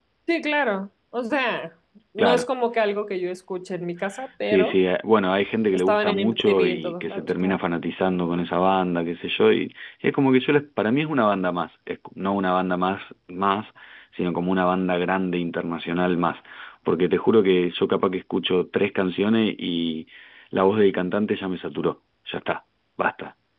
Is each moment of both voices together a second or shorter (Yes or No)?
No